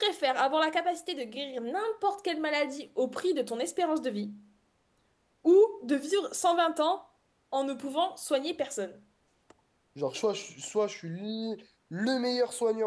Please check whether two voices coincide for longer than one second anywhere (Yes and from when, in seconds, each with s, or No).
No